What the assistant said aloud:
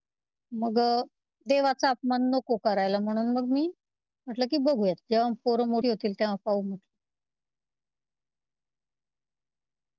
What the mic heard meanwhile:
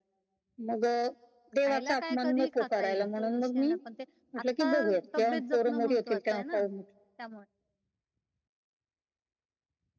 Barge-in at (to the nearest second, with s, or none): 2 s